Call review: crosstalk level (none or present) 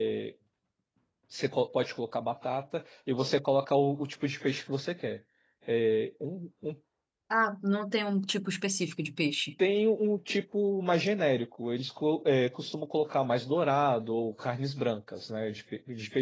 none